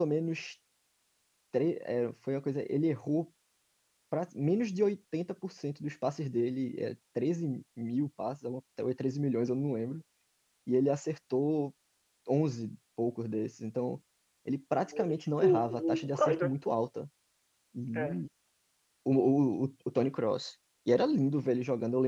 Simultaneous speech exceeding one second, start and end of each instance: 14.8-16.6

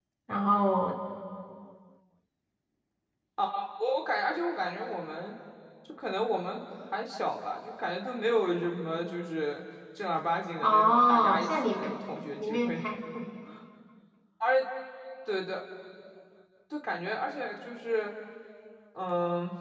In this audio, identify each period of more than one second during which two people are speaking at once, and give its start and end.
10.6-12.0

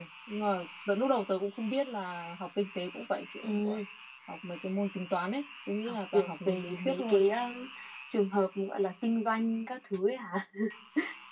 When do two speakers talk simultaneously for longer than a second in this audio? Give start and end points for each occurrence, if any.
5.8-7.2

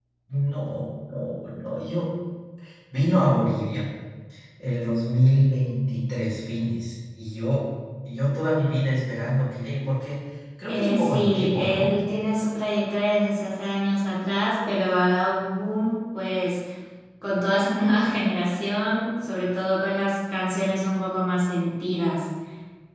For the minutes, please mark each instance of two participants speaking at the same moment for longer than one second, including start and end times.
10.7-11.9

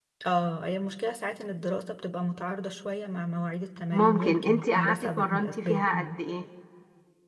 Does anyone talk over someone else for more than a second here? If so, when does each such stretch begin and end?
3.9-6.2

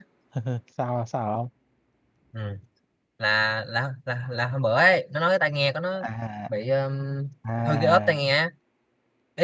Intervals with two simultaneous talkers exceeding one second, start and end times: none

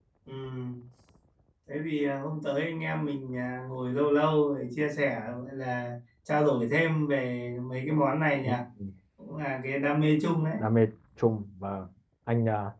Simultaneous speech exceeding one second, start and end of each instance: none

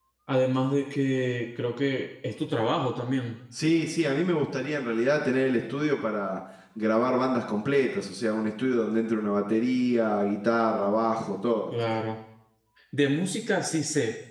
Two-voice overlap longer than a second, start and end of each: none

